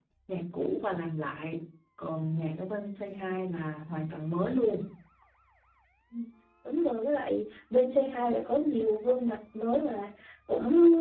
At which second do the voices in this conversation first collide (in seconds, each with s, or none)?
none